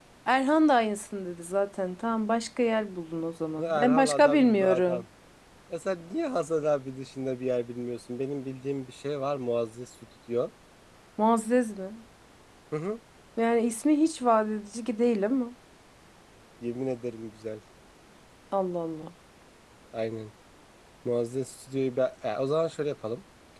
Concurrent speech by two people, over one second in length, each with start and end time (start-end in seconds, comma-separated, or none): 3.6-5.0